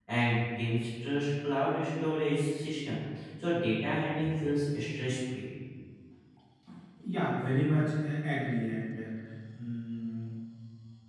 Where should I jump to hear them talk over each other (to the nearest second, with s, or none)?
none